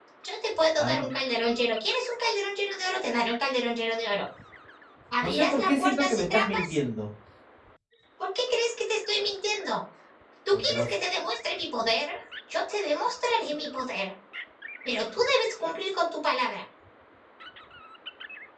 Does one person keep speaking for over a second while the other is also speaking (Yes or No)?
Yes